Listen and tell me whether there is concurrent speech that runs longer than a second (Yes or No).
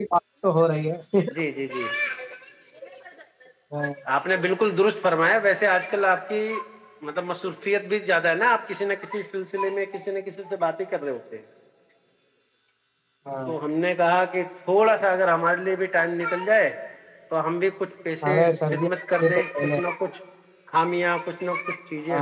Yes